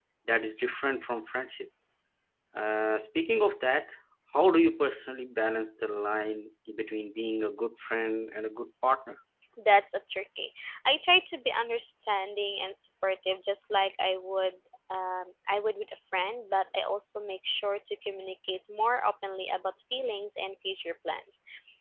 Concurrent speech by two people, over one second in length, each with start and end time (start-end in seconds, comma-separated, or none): none